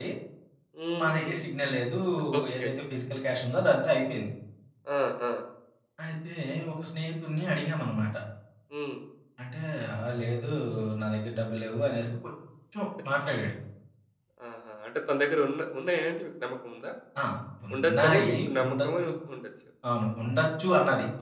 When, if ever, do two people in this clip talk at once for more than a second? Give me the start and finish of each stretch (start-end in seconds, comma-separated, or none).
17.7-19.1